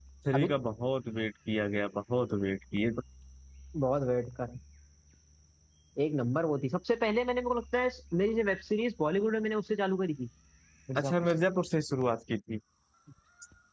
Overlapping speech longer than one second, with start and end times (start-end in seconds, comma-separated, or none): none